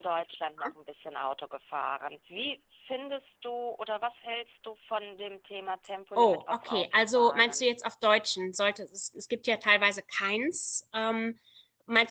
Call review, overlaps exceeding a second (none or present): present